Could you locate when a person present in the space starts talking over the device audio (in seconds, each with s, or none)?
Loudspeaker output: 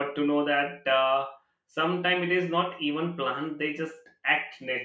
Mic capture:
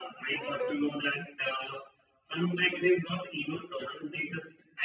0.3 s